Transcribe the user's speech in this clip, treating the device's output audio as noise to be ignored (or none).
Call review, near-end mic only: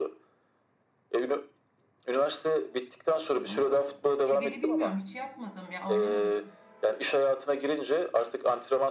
ama çivili bilmiyorum hiç yapmadım ya oynamadım